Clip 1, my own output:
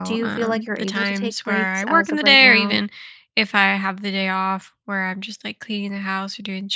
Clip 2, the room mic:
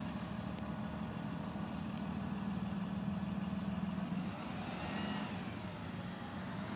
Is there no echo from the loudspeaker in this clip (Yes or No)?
Yes